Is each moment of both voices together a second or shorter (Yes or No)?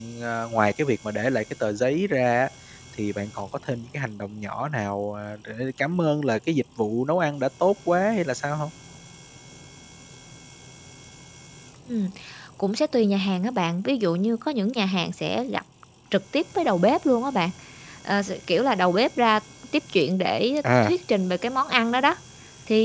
Yes